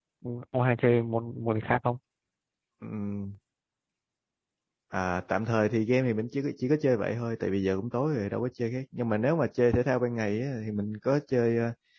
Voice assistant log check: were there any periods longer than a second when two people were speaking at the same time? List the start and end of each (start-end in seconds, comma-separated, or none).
none